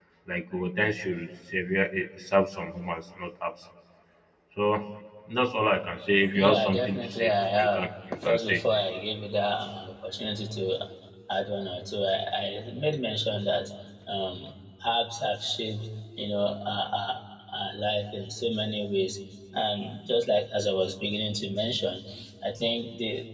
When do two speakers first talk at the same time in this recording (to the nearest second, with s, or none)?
6 s